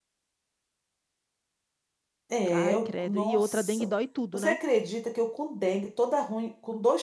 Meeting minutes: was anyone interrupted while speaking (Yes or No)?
Yes